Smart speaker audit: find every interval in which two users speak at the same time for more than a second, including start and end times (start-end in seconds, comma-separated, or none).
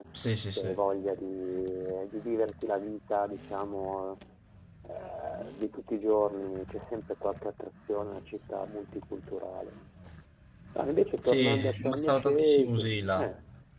11.2-12.7